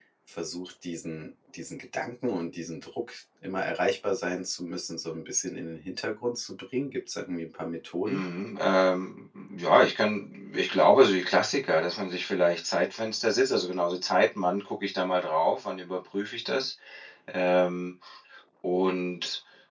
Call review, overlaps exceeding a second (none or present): none